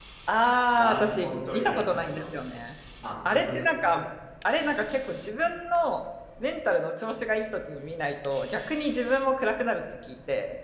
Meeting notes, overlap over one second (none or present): present